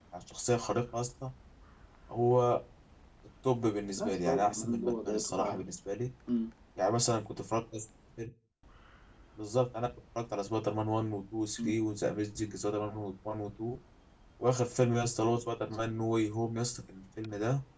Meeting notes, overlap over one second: present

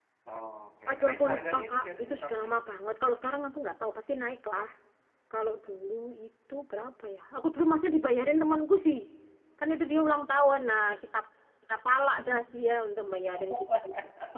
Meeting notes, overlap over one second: present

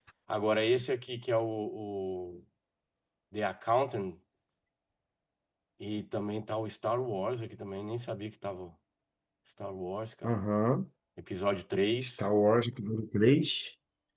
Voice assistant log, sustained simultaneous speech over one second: none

